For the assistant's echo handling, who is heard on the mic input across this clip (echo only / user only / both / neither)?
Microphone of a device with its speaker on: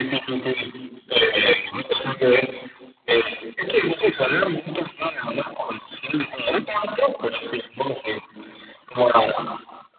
echo only